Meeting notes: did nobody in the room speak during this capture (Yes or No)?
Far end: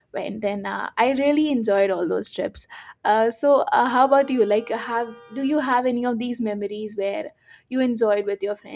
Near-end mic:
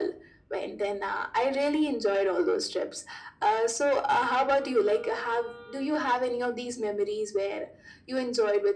Yes